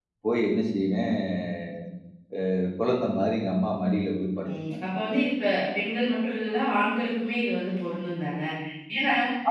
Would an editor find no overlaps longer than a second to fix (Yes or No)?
Yes